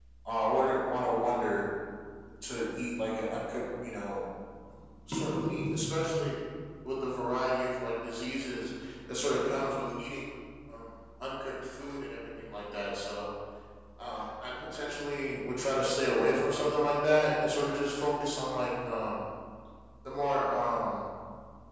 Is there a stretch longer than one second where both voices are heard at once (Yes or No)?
No